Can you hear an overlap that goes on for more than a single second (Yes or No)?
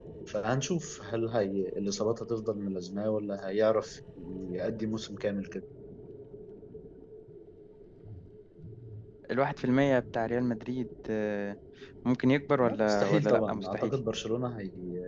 Yes